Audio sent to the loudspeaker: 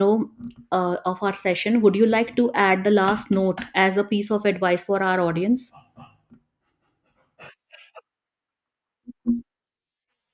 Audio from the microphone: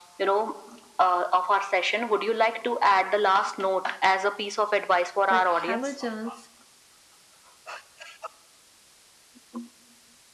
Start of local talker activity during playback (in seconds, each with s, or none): 5.3 s